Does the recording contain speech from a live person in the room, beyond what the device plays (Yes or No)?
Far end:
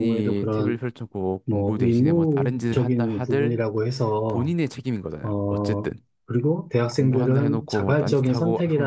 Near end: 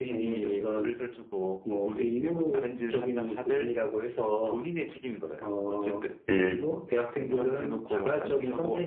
Yes